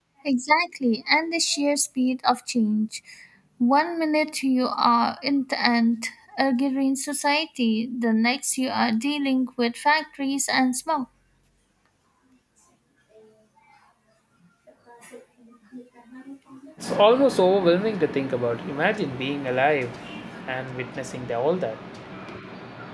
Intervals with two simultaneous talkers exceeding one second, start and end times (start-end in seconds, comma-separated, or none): none